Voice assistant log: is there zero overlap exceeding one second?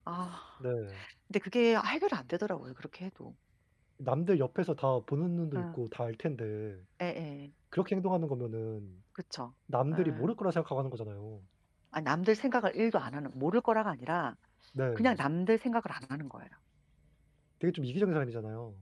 Yes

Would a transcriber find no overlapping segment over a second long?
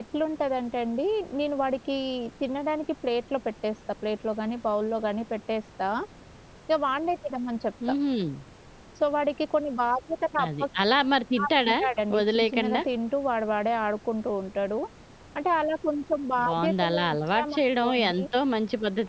No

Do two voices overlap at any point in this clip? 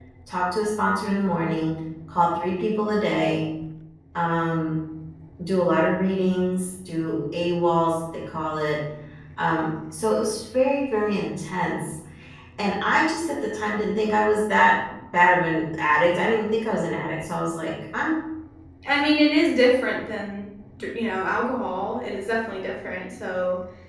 No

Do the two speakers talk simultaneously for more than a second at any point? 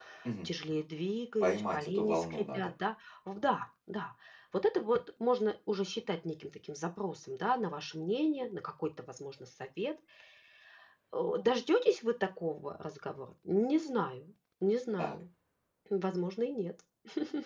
Yes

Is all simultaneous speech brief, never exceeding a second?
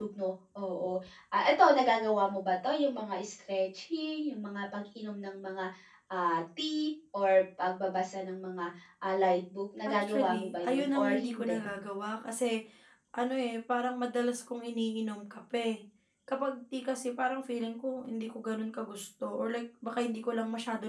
No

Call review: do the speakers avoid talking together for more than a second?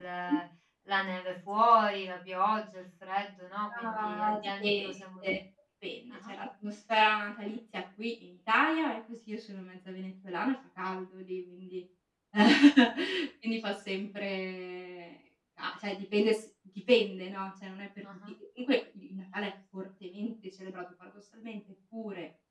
No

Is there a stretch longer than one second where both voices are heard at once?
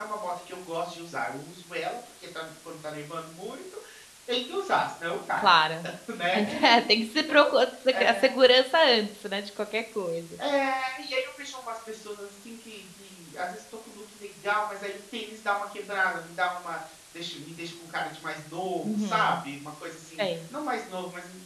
No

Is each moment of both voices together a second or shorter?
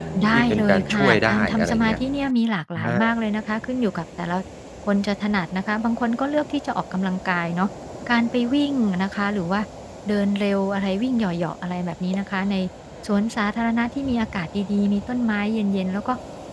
No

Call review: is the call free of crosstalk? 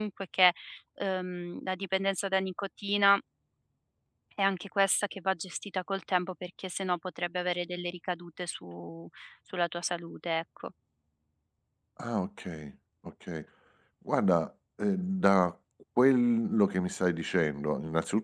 Yes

